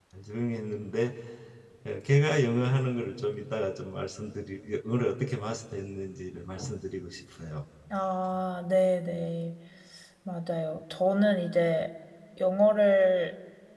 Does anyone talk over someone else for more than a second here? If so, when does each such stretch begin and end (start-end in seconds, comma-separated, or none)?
none